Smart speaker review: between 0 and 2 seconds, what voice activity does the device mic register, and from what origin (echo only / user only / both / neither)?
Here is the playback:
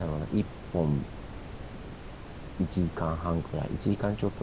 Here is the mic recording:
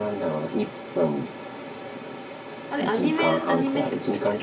echo only